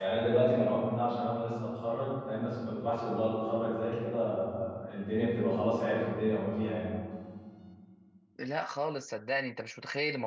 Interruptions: none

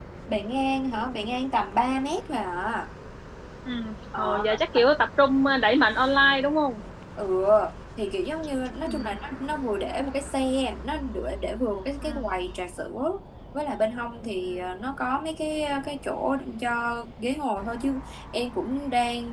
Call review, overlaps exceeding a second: none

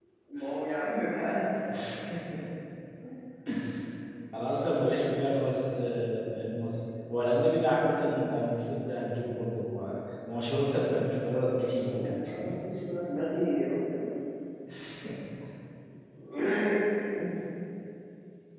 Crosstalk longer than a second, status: present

